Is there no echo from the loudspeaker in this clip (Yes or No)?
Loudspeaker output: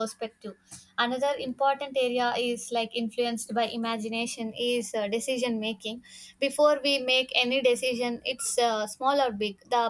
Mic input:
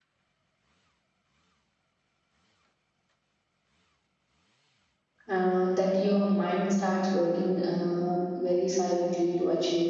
Yes